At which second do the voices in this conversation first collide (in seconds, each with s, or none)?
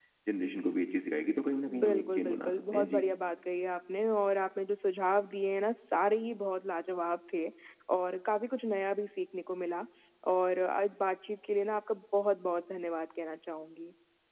1.7 s